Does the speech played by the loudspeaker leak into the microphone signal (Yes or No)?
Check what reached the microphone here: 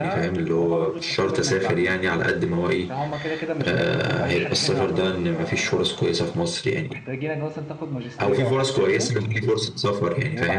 Yes